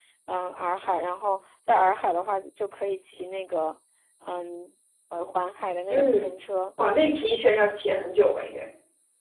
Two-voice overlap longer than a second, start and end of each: none

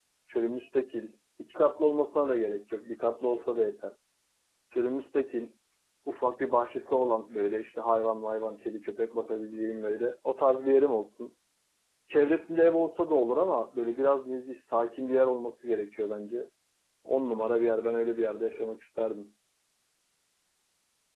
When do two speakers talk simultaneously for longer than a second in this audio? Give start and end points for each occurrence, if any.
none

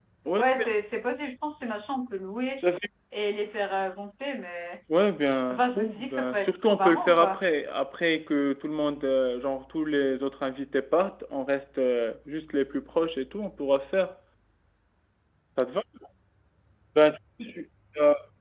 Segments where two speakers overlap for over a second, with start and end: 5.5-7.4

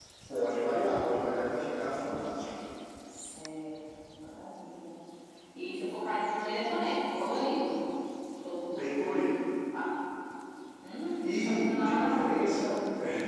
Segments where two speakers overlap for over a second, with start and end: 11.2-12.8

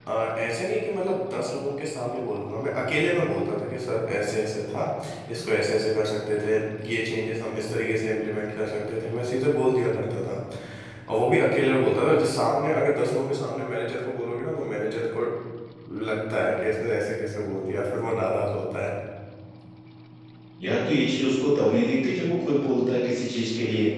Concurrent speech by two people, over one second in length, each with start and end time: none

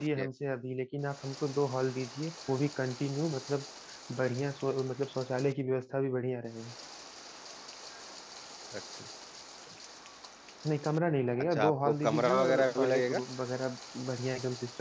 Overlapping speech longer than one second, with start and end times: 11.5-13.2

